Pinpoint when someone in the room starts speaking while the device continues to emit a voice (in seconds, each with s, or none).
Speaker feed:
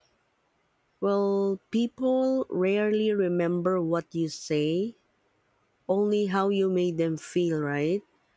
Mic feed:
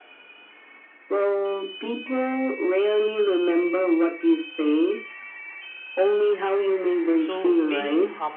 7.2 s